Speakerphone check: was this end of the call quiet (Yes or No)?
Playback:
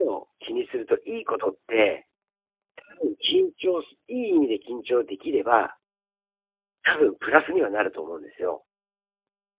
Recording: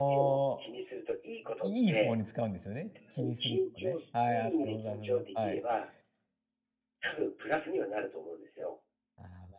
No